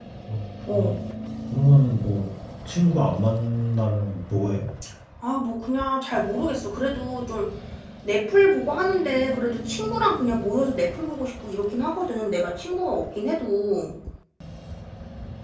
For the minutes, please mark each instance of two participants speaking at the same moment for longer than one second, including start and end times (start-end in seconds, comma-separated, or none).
none